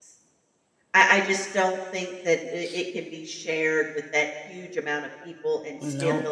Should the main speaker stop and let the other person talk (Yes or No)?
No